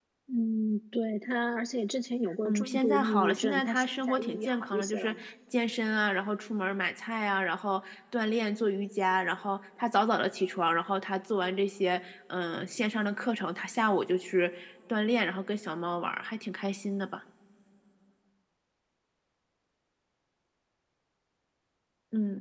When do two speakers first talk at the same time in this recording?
2 s

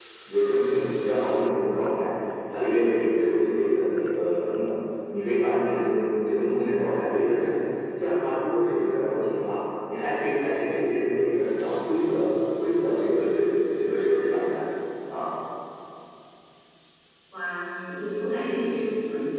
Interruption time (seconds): none

